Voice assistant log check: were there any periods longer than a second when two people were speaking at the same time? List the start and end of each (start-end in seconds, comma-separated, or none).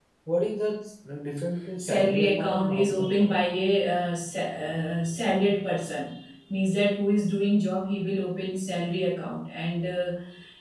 1.8-3.3